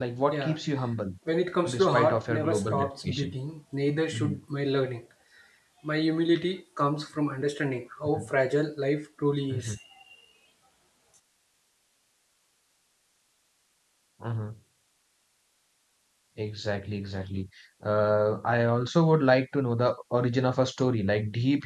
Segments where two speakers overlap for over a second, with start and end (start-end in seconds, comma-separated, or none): 1.7-3.3